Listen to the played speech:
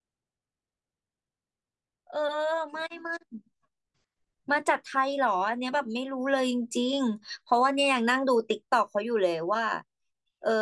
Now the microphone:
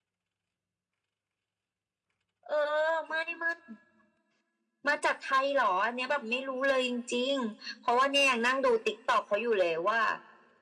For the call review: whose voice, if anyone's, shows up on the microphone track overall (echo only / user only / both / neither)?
echo only